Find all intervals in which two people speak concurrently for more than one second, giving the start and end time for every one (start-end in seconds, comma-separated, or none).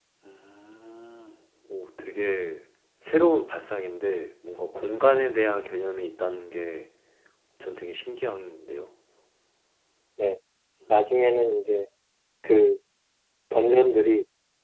none